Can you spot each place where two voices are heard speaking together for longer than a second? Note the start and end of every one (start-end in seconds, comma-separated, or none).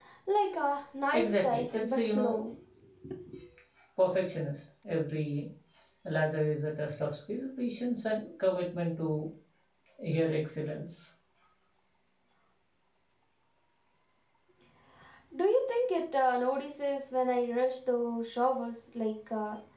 1.1-2.4